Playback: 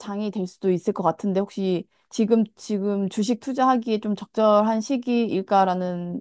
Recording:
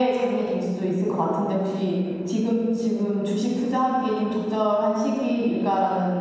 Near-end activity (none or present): none